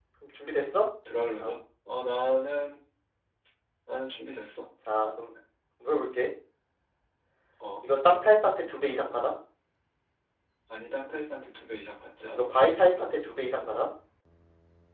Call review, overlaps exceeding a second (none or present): none